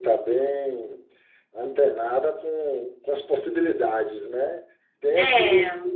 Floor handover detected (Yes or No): No